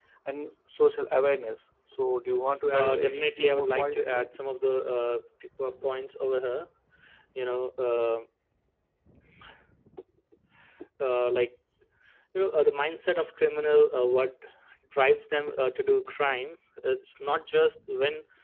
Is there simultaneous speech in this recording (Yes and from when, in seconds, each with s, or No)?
Yes, from 2.7 s